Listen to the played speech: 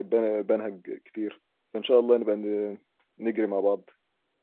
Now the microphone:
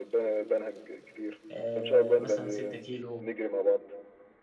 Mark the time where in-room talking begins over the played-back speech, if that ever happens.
1.5 s

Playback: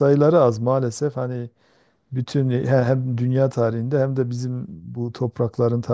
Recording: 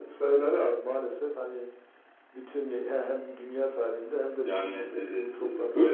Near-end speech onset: 4.4 s

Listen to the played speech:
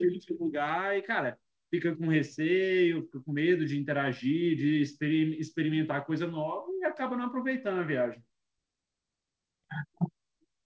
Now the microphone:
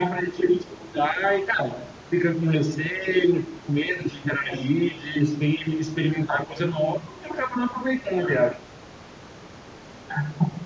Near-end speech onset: none

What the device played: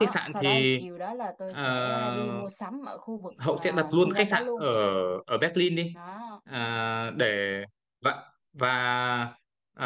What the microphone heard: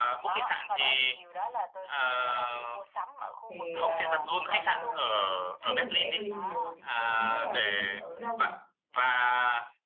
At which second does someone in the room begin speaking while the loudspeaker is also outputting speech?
3.4 s

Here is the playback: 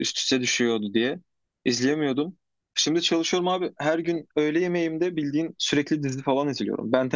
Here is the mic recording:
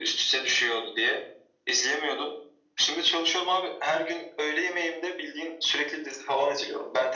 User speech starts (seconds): none

